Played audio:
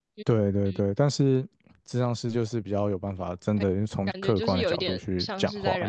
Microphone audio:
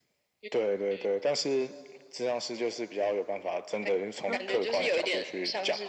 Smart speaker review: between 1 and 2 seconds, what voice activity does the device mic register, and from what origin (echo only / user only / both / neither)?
echo only